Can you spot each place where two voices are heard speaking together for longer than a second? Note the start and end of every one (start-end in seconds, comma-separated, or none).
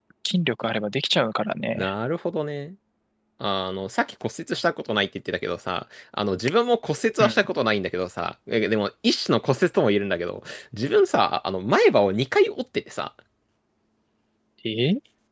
none